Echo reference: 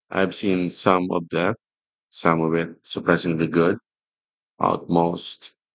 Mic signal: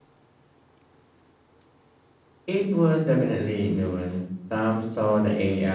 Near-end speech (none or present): present